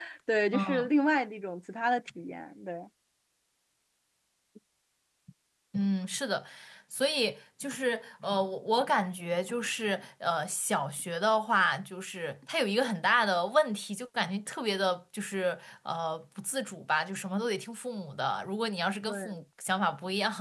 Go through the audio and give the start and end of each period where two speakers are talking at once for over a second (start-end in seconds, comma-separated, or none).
none